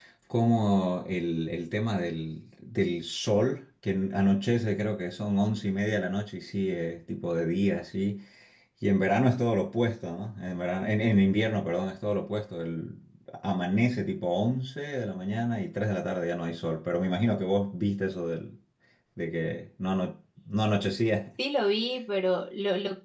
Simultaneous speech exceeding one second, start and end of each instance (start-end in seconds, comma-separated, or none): none